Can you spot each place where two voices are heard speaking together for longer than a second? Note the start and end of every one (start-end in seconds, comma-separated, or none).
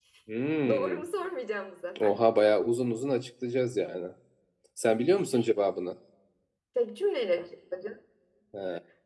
none